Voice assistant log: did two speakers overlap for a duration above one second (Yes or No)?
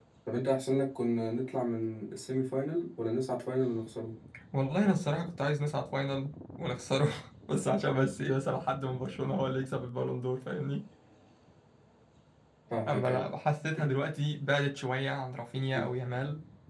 No